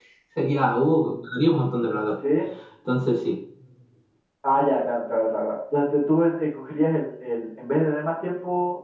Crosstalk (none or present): none